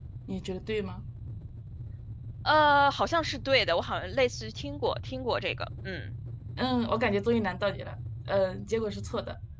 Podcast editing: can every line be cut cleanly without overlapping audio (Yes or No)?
Yes